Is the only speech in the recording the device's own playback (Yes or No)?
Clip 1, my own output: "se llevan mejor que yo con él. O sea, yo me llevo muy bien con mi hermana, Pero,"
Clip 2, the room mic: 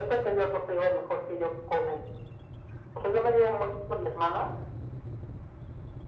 Yes